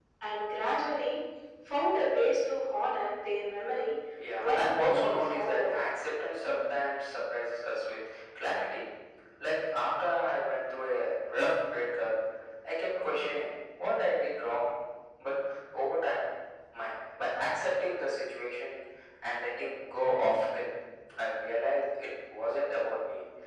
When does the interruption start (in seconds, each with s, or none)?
4.2 s